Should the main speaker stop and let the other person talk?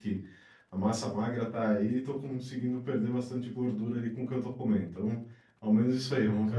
No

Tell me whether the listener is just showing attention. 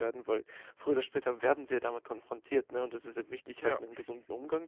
Yes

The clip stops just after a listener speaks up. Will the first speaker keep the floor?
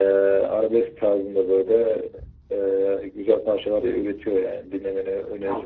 No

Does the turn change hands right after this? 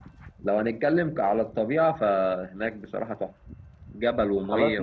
No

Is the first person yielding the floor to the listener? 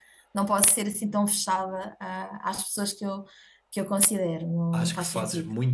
Yes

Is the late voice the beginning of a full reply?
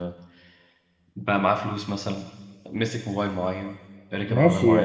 Yes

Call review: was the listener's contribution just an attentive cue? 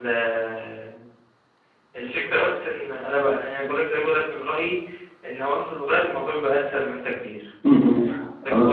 No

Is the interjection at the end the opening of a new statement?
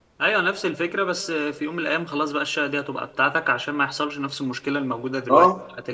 Yes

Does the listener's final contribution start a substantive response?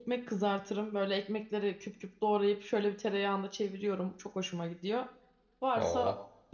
No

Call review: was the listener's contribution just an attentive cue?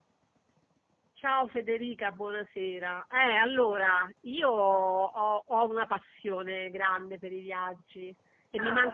Yes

